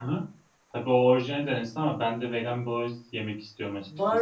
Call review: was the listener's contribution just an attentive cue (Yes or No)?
No